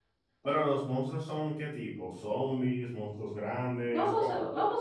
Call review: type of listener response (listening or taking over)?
taking over